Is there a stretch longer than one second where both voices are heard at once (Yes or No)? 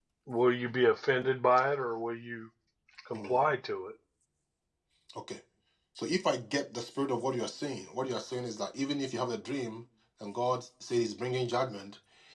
No